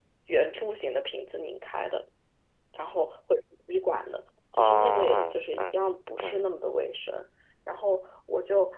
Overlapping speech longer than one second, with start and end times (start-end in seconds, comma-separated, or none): 4.5-5.7